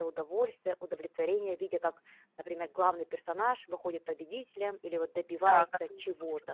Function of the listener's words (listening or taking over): taking over